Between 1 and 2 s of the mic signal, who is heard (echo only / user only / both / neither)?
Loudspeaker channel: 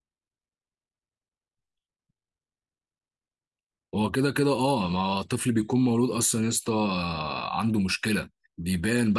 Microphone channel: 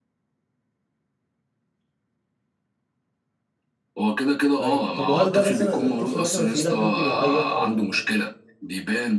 neither